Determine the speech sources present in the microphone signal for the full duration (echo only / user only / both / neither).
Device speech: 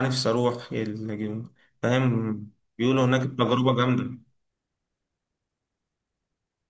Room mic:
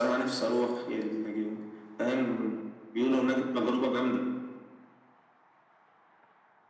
echo only